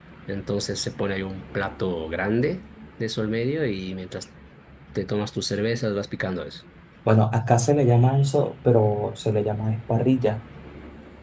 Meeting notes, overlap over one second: none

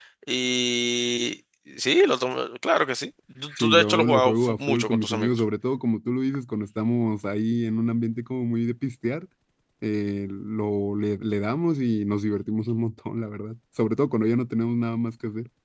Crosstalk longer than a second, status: present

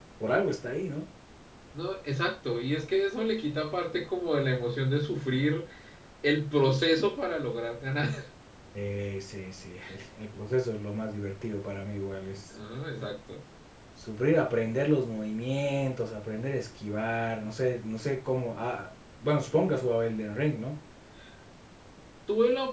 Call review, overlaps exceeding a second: none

